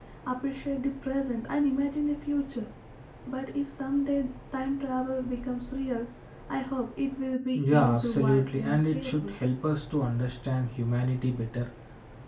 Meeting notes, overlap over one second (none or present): present